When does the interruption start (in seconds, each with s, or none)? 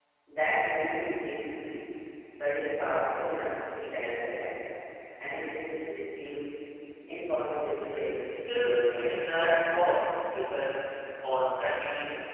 8.2 s